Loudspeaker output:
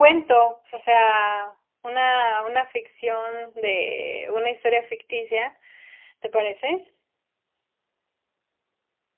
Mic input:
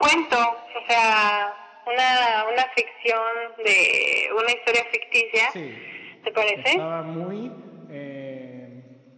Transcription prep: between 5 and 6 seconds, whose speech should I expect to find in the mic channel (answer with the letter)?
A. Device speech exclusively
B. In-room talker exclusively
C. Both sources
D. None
C